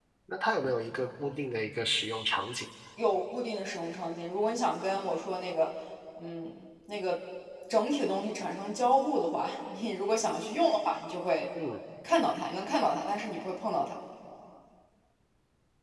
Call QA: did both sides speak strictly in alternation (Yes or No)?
Yes